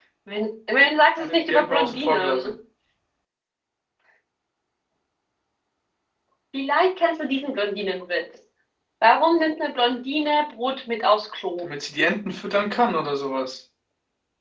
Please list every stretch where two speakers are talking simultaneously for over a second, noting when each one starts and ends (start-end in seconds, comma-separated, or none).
1.2-2.5